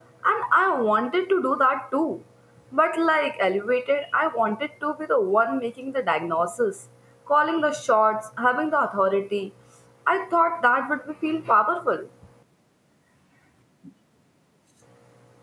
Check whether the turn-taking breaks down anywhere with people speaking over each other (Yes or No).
No